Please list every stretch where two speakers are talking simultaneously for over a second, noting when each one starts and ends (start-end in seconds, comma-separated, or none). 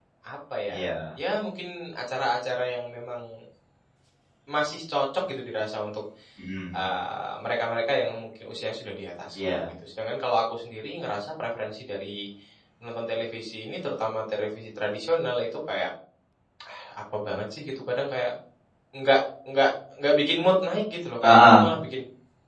none